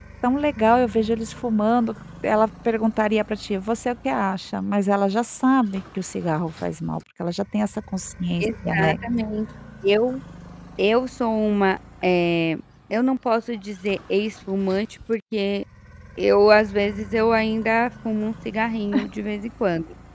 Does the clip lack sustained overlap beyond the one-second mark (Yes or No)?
Yes